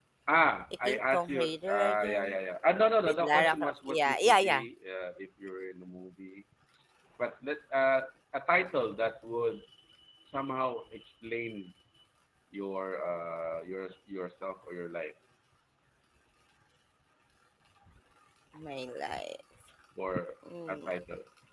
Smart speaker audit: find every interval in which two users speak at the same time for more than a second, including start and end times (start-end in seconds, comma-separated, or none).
0.8-2.4, 3.0-4.6